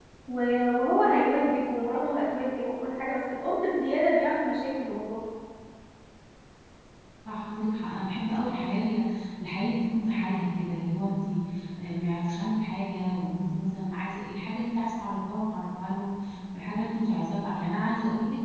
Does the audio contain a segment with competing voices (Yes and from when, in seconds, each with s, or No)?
No